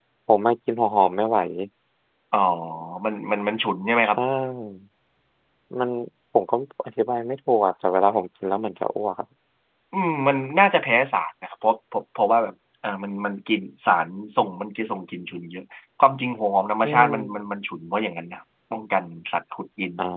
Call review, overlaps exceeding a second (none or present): none